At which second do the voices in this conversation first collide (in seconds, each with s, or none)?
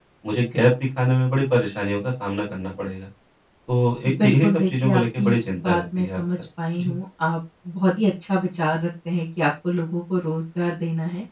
4.2 s